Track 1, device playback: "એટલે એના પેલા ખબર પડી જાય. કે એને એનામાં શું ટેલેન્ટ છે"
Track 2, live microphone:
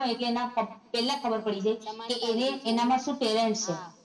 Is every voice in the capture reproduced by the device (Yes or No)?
No